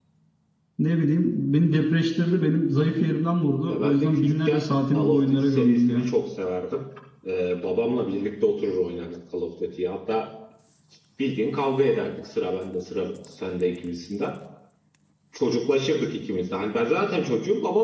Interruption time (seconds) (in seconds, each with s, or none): 3.7 s